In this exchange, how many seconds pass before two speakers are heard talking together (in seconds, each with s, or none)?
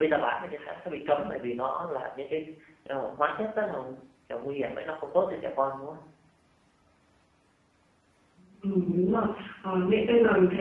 none